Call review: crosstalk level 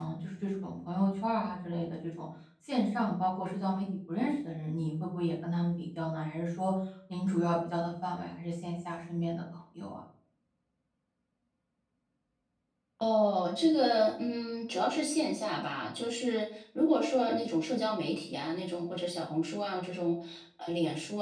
none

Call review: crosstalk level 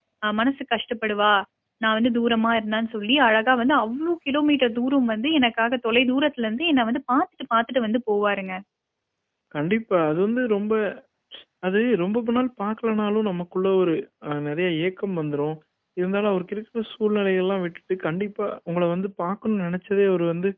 none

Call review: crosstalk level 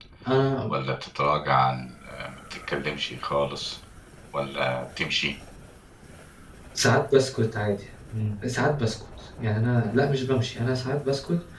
none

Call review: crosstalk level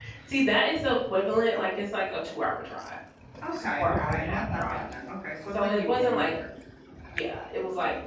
present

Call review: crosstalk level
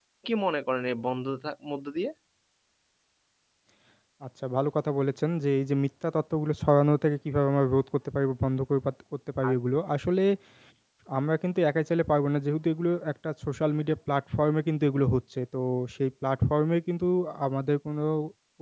none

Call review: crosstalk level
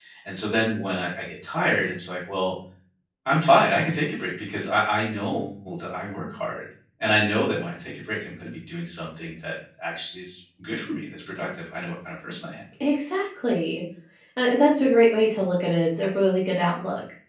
none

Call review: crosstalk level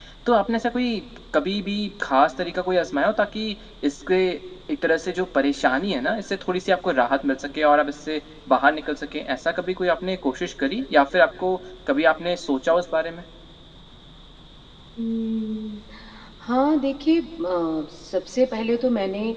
none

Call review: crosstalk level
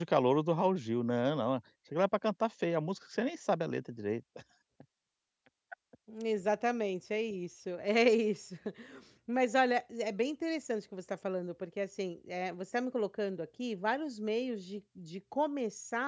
none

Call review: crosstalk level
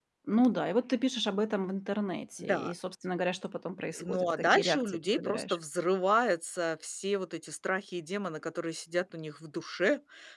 present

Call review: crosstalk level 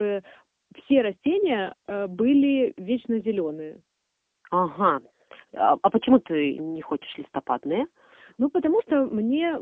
none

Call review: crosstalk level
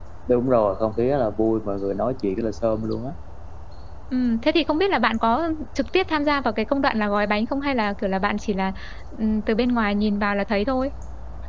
none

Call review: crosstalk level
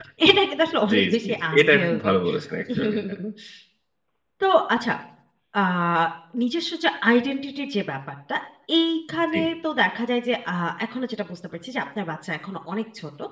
present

